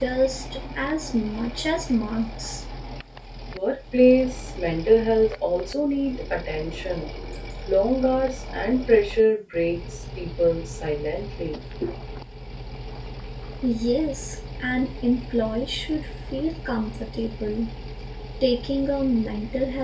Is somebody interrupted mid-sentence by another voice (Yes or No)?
No